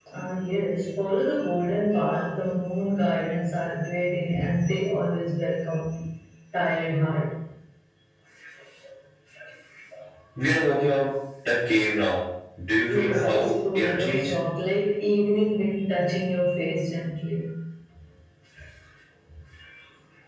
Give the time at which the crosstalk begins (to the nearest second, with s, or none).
13 s